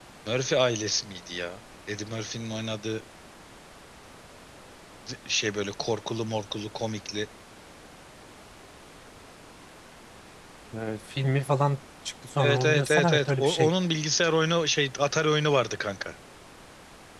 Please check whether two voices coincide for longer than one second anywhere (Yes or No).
Yes